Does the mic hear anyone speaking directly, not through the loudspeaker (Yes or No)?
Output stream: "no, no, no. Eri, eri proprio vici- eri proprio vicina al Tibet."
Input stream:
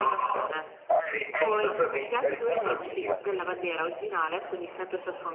Yes